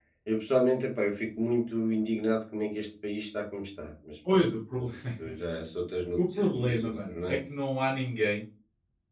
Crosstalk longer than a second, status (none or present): present